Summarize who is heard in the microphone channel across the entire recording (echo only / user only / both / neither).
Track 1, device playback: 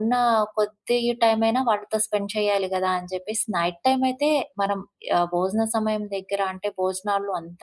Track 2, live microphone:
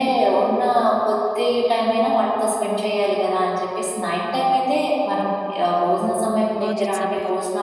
both